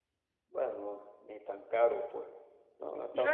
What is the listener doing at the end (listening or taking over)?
taking over